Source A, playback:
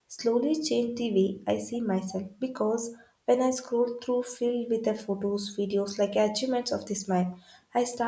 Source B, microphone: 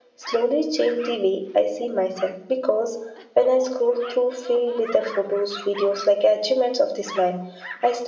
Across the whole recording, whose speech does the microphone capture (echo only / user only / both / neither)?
echo only